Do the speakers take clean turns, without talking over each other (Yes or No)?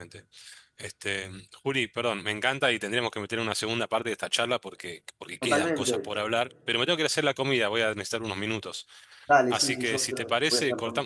No